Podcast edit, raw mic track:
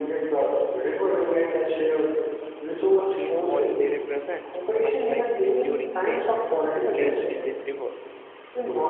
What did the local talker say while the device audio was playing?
in what they represent, much like enduring faith placed in this river.

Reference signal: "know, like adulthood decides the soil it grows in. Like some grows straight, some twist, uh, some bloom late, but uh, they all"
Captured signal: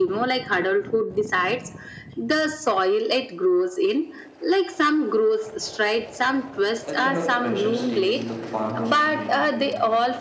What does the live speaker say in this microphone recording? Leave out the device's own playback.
That kind of pressure steals the fun from dreaming, you know.

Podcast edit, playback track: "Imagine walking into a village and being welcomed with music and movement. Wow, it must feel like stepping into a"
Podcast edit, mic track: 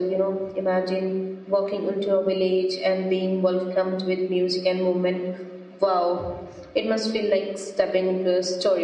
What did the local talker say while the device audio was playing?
none

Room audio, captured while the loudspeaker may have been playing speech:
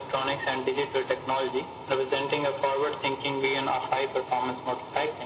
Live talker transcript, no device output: none

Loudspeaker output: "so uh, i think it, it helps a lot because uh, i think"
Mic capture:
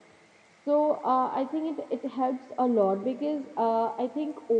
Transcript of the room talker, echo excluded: none

